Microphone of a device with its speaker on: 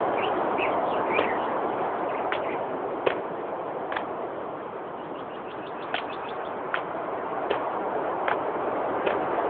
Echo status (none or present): none